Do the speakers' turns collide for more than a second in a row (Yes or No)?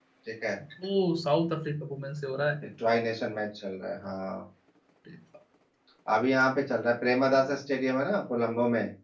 No